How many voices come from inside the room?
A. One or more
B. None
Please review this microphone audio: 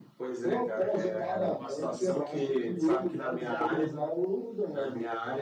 B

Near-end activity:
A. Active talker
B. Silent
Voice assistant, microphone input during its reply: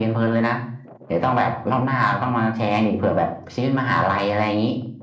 B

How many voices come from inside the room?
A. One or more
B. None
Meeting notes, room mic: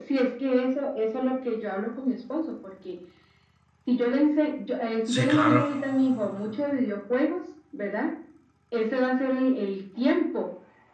A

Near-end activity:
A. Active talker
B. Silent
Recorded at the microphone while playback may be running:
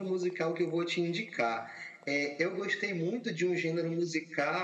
B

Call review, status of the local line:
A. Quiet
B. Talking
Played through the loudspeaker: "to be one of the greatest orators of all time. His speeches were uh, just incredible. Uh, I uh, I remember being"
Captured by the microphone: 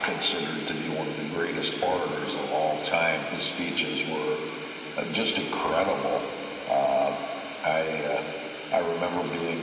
A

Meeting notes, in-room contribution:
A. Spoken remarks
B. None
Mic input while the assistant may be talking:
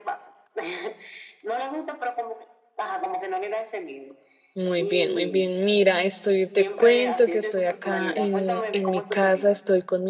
A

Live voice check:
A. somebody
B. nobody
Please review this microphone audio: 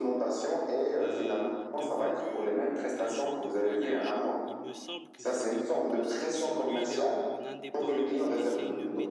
A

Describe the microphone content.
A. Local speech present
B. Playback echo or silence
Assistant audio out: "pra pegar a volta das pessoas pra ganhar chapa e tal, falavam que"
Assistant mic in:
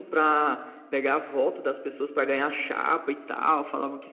B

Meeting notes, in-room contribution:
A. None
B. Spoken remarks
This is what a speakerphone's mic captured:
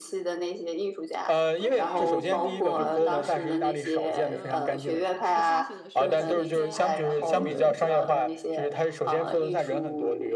B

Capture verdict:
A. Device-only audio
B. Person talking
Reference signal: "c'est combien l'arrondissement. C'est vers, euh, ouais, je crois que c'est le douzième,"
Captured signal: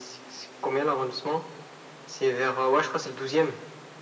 A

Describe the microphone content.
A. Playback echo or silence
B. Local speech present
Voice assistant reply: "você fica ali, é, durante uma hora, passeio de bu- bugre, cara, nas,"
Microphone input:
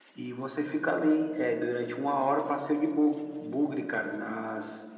A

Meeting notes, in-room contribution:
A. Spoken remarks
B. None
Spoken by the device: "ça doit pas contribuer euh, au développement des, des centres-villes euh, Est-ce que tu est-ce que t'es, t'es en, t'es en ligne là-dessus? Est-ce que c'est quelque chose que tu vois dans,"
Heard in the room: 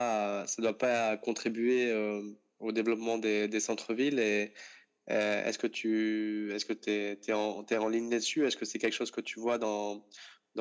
B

